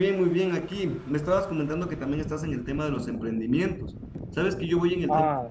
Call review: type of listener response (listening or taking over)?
listening